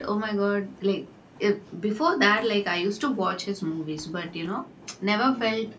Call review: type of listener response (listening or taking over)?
listening